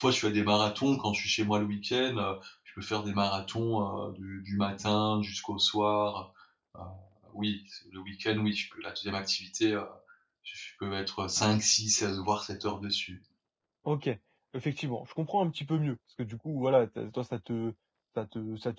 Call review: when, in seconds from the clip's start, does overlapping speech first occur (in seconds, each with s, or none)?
none